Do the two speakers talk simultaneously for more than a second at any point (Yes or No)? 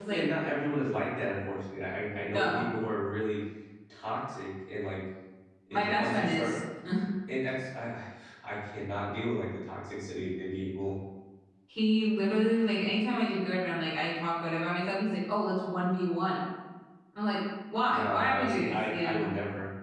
Yes